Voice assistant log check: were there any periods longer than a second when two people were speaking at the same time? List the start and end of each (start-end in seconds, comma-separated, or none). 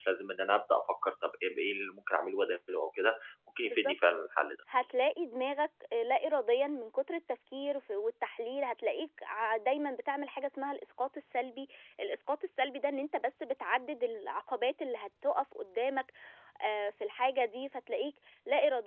none